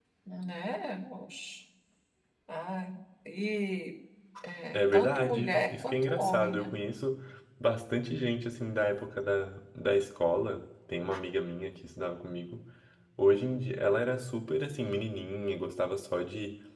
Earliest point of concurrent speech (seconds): 4.7 s

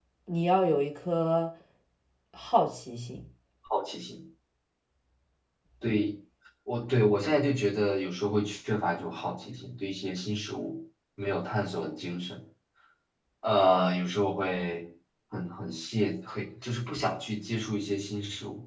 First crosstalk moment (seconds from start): none

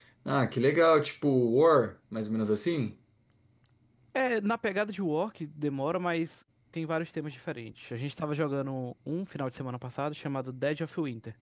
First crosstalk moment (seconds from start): none

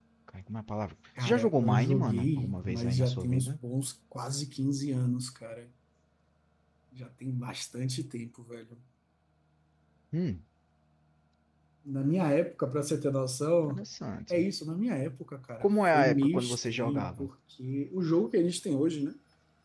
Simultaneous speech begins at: 1.2 s

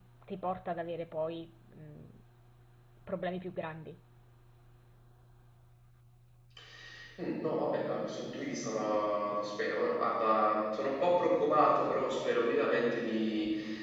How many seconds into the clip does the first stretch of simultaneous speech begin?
none

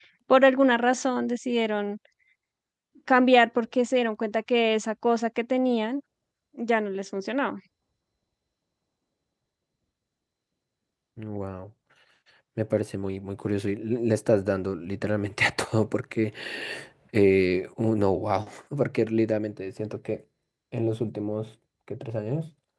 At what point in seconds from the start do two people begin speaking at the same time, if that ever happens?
none

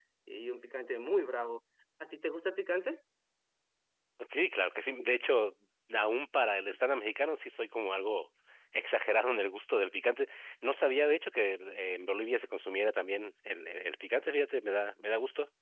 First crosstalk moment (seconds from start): none

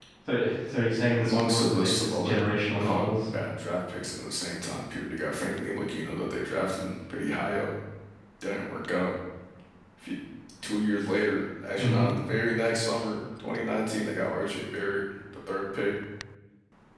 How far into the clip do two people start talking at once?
1.1 s

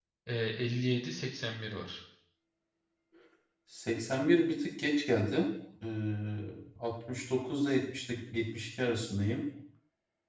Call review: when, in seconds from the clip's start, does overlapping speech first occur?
none

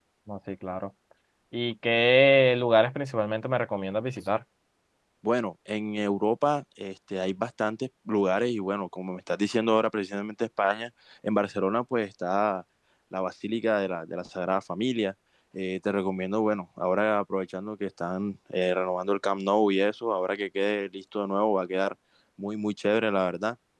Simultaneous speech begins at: none

